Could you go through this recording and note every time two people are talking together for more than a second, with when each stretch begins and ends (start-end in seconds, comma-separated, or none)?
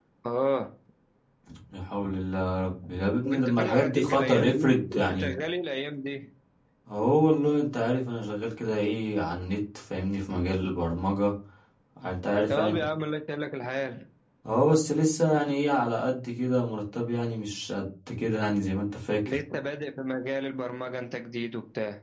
3.2-5.3